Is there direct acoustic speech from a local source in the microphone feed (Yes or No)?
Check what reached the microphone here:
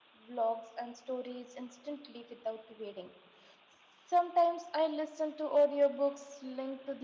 Yes